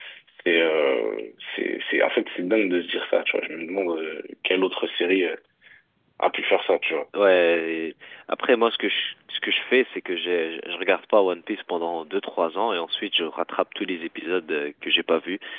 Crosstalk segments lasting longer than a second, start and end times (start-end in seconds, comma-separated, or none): none